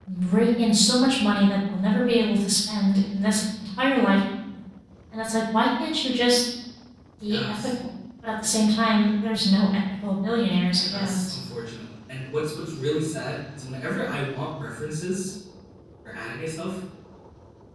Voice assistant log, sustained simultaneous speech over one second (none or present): none